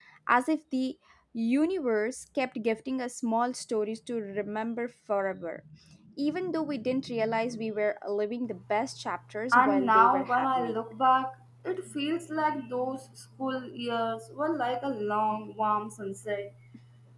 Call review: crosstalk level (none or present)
present